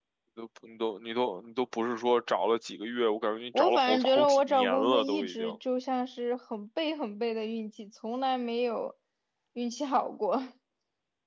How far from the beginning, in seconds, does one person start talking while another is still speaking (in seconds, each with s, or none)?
3.5 s